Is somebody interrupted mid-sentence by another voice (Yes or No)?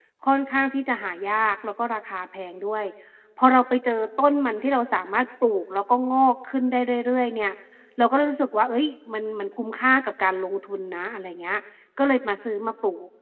No